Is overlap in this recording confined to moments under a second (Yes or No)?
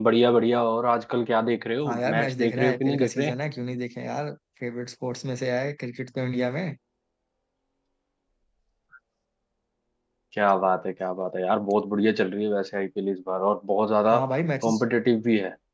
No